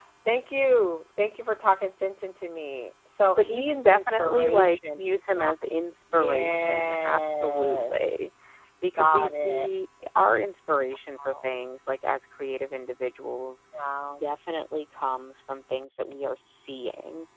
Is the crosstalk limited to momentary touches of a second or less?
No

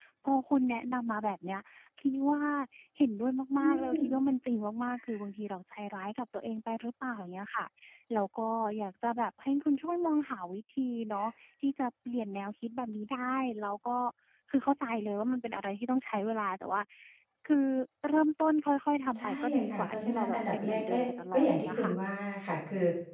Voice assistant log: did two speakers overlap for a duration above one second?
Yes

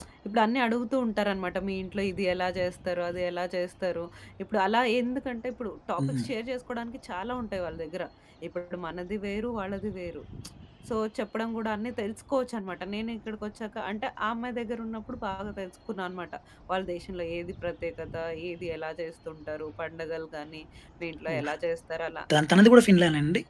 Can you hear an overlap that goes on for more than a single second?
No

